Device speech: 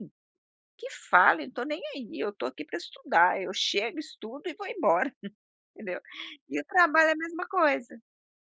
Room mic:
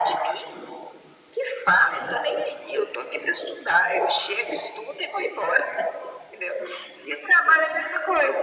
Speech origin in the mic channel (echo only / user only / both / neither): echo only